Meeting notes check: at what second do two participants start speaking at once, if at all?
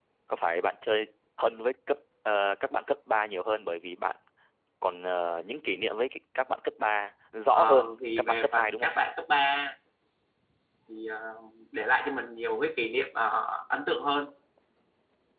8 s

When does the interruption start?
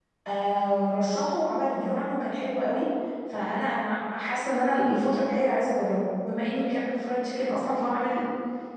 none

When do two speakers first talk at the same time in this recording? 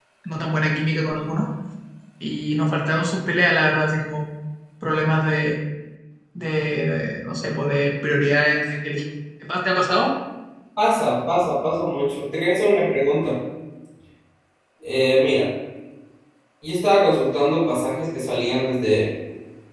none

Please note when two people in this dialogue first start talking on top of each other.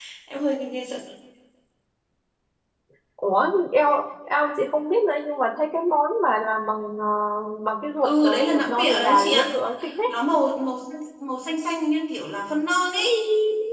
8 s

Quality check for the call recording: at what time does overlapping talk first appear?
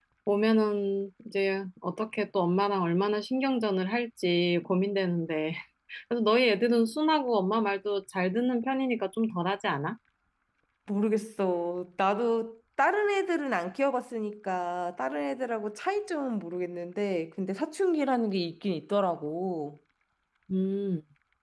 none

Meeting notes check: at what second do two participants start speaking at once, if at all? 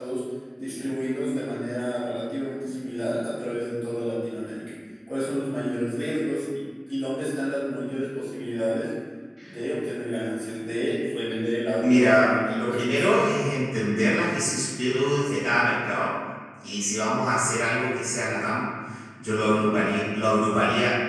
12 s

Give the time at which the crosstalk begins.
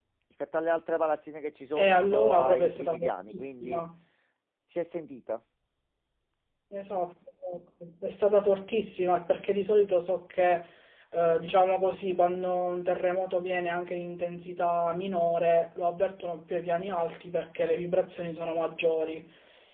2 s

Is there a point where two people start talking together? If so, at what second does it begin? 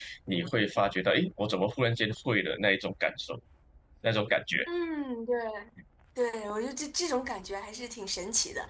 none

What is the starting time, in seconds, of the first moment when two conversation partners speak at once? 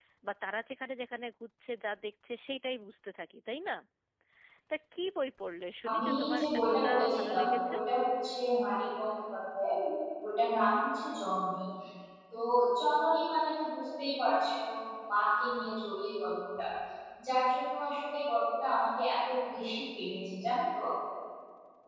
6 s

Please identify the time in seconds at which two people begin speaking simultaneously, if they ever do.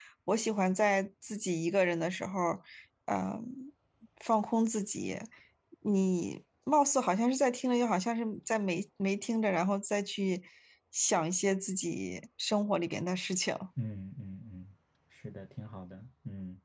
none

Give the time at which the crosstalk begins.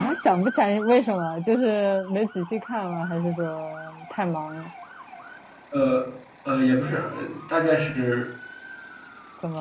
none

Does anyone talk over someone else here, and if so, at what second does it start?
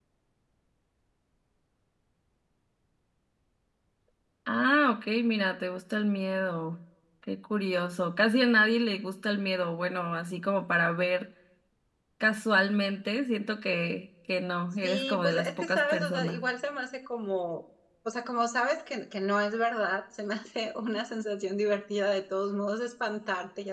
15 s

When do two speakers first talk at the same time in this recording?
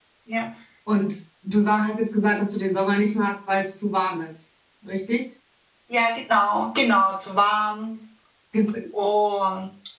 none

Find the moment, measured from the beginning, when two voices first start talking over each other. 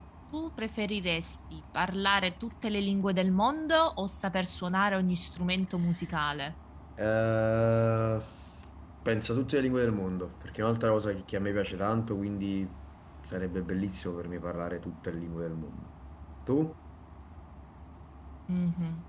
none

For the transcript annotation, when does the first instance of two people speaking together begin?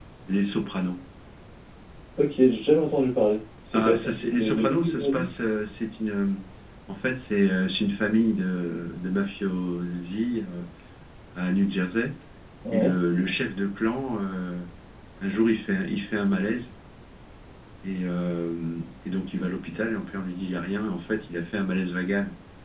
4 s

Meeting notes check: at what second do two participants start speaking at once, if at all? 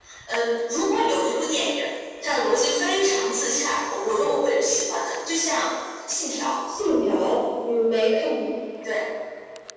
none

